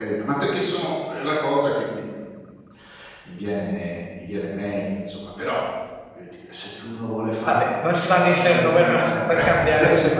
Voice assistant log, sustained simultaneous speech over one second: present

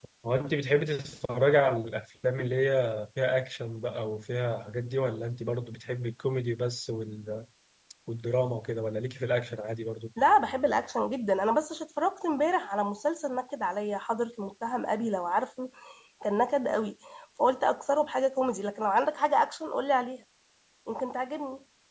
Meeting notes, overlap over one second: none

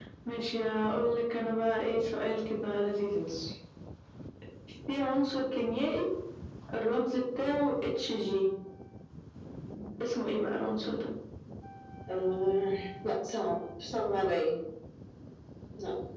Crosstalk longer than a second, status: none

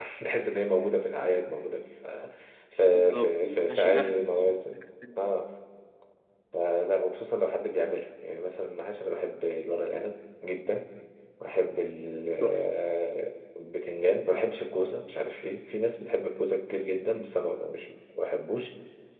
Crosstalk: present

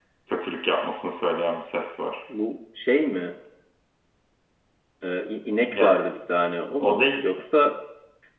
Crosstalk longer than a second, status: none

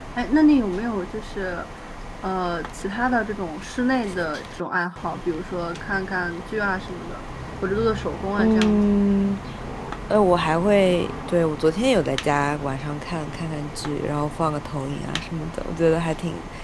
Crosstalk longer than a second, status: none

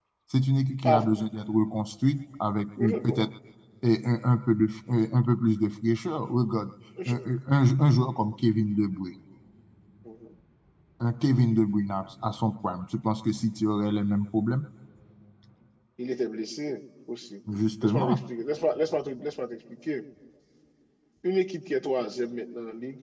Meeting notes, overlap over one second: none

